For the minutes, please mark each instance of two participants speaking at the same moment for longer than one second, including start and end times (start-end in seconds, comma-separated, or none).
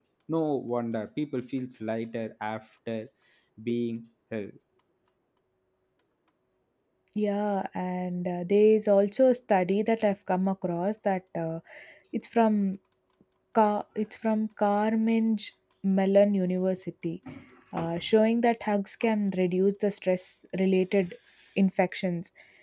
none